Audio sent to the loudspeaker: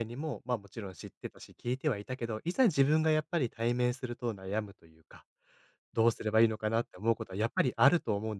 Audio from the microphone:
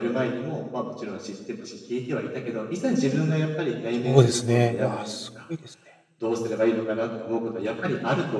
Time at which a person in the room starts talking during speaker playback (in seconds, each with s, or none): 3.9 s